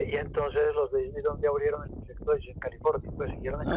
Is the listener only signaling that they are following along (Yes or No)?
No